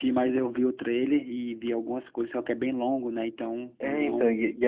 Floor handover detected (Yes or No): Yes